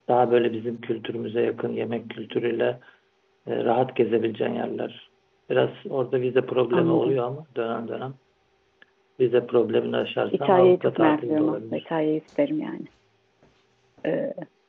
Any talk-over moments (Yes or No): Yes